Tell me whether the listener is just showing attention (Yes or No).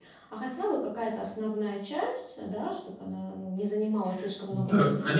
No